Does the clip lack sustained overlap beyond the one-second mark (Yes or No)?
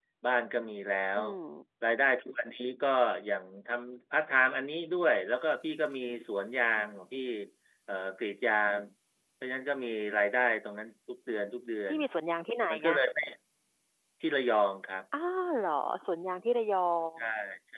Yes